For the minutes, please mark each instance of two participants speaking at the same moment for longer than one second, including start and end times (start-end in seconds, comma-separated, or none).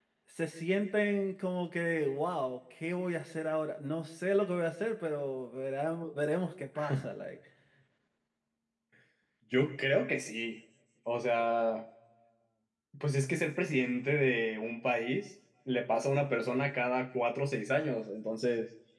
none